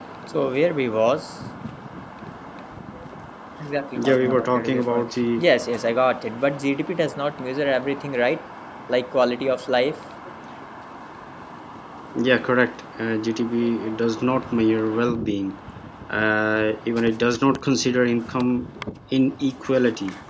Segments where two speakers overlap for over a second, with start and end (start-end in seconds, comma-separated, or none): 4.0-5.4